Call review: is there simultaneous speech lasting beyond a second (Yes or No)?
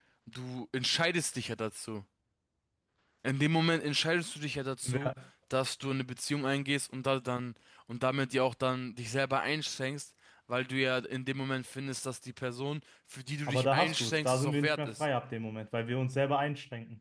Yes